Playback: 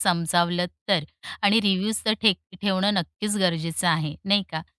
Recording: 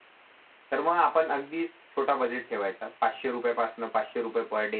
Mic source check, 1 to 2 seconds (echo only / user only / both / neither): user only